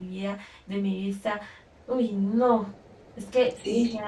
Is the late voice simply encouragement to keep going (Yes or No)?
No